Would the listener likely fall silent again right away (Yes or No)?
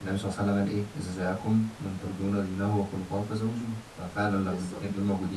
Yes